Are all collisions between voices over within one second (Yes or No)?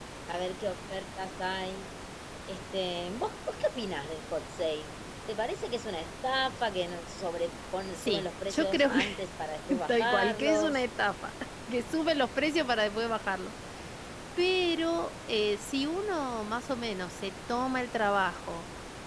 No